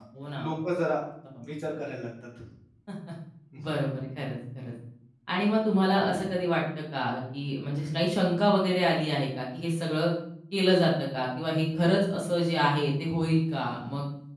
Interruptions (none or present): none